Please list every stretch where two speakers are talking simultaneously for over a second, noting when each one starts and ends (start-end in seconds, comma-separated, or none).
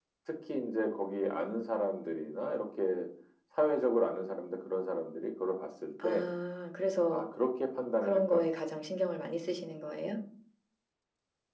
none